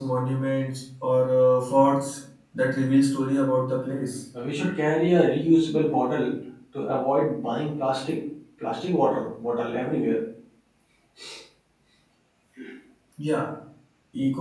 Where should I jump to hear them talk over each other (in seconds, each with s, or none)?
none